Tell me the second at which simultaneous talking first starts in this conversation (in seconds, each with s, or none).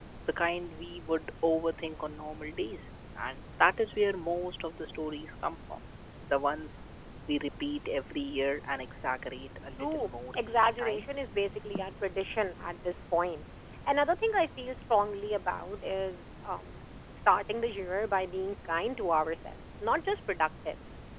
9.8 s